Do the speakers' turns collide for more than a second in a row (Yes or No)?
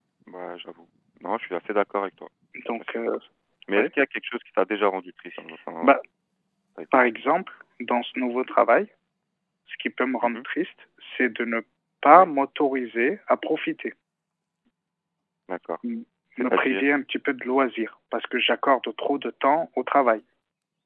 No